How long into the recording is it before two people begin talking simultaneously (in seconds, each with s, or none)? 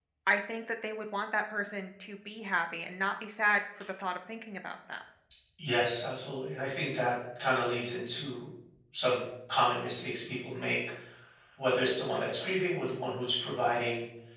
none